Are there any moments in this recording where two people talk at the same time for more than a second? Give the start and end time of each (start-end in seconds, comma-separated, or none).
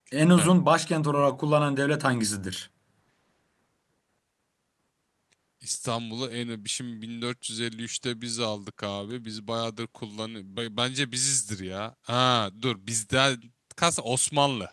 none